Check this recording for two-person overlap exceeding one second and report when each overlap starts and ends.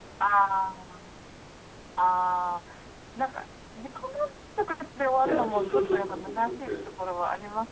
5.2-6.7

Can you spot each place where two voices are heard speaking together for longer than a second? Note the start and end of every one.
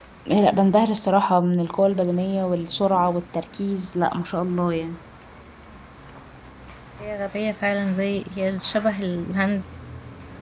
none

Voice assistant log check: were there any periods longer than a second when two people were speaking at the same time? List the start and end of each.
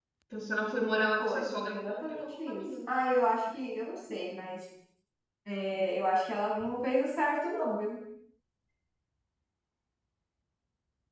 1.2-2.9

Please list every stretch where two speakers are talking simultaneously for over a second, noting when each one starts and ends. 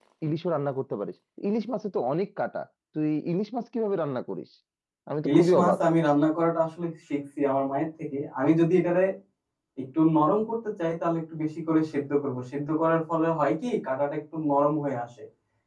none

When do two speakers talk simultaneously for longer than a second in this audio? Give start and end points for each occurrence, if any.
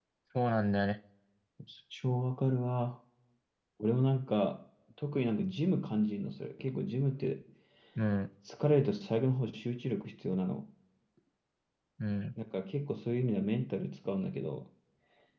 none

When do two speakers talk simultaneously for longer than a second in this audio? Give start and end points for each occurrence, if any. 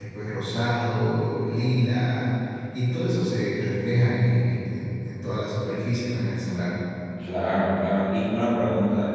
none

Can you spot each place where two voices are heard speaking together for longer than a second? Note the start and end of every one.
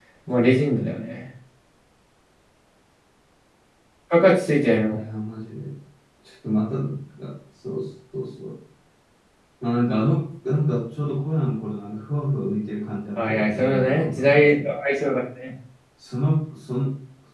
13.2-14.7

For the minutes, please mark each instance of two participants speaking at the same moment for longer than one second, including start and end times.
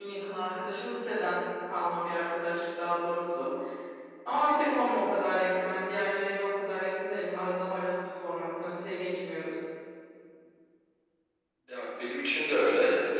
none

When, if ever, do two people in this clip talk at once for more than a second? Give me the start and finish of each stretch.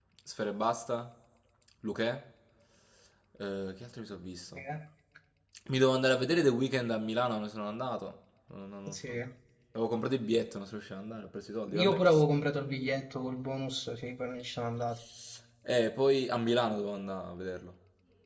none

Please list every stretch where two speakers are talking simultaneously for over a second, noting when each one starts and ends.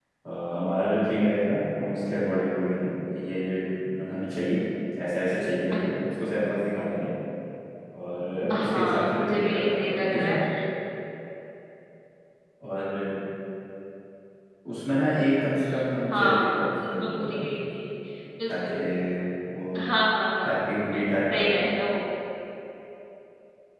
8.6-10.3, 16.1-17.6

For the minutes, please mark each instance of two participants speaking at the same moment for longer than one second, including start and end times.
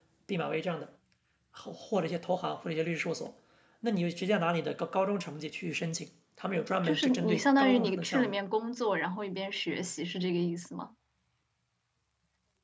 6.8-8.4

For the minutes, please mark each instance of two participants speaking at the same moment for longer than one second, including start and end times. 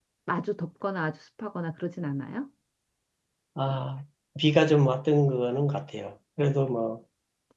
none

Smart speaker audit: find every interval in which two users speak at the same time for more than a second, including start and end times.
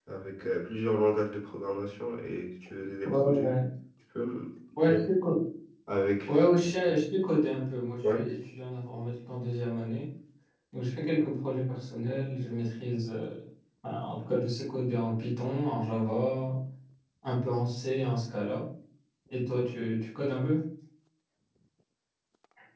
none

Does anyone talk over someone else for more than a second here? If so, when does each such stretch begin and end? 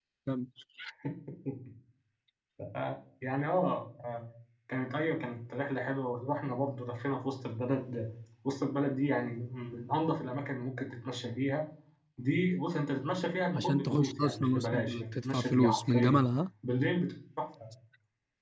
13.5-16.2

